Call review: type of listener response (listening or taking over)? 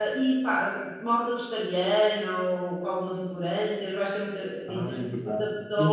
taking over